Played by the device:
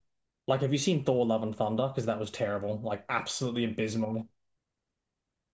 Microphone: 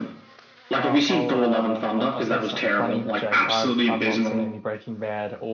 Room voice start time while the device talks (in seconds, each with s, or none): 0.8 s